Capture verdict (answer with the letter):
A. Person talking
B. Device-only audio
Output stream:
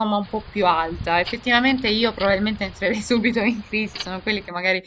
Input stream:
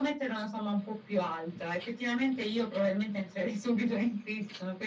B